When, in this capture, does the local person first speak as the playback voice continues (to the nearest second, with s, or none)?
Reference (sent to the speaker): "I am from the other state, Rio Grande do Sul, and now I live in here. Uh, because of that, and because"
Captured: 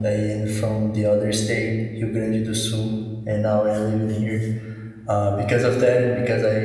none